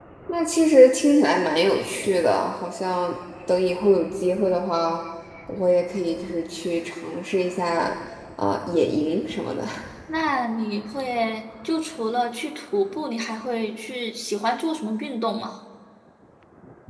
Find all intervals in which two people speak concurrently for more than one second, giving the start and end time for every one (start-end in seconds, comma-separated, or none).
none